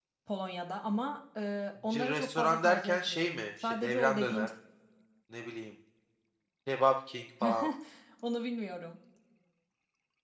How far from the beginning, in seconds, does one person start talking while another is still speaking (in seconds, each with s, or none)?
1.9 s